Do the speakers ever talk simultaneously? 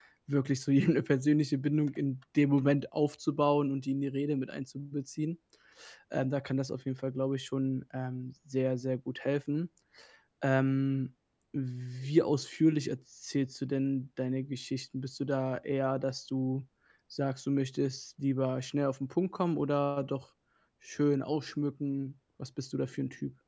No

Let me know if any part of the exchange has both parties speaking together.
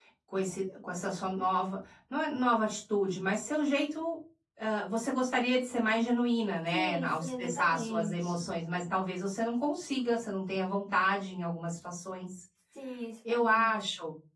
Yes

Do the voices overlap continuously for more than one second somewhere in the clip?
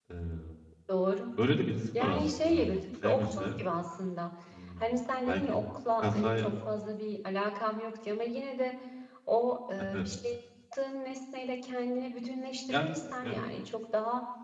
Yes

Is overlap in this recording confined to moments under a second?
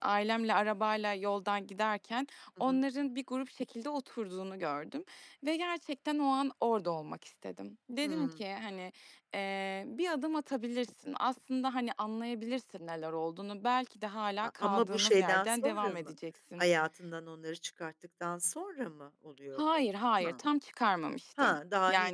No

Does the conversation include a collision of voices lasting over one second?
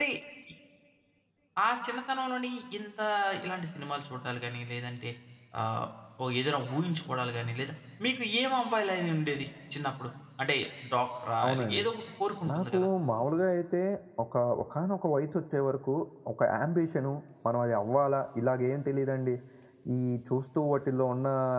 No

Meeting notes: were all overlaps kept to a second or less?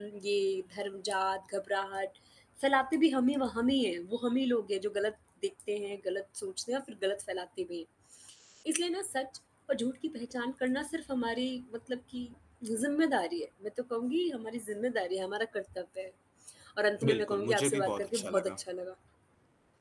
No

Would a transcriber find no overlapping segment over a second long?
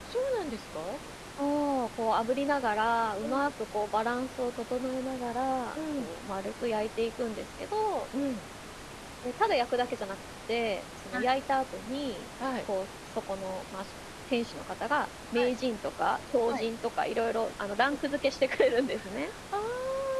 Yes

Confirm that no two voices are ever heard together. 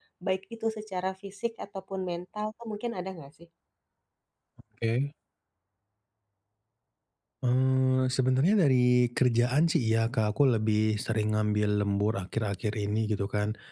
Yes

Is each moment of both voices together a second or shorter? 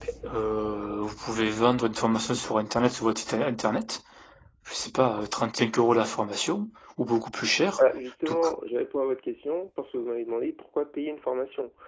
Yes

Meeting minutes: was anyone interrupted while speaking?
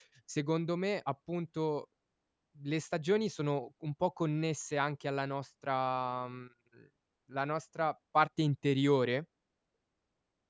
No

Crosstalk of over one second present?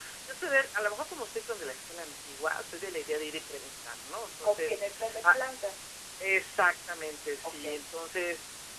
No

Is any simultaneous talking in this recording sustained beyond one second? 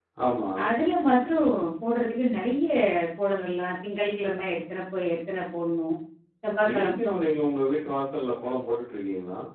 No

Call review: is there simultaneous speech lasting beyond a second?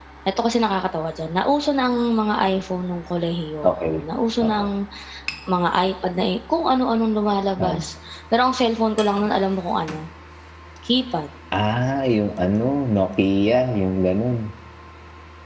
No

